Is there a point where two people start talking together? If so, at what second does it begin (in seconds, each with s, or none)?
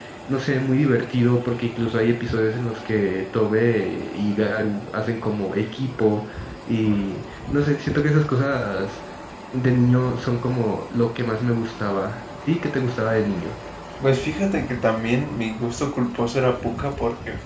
none